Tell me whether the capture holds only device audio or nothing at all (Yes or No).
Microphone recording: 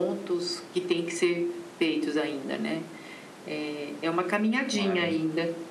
No